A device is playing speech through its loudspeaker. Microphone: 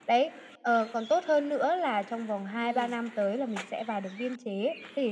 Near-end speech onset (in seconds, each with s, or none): 2.5 s